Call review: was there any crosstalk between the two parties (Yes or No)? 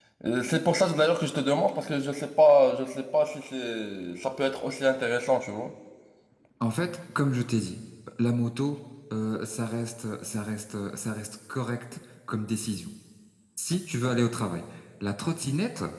No